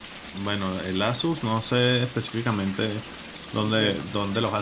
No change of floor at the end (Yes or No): Yes